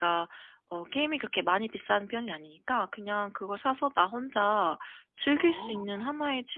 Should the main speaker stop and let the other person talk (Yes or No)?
No